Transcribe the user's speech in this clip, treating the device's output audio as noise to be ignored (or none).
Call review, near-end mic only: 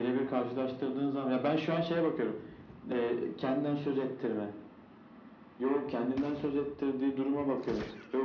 none